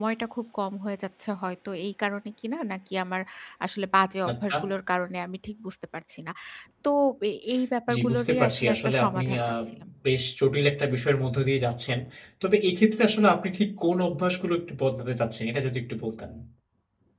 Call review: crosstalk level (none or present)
present